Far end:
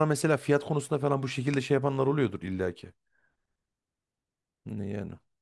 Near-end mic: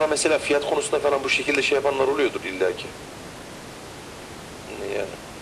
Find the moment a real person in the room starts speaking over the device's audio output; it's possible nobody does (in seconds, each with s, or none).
none